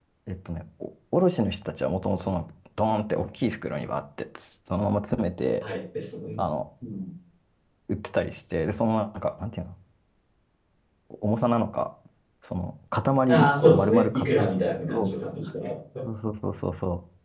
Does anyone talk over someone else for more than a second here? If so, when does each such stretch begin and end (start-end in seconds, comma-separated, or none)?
13.3-15.1